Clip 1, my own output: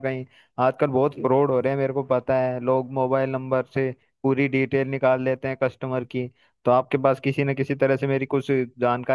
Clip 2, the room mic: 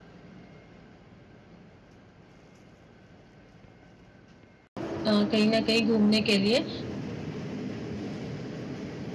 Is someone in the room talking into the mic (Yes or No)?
Yes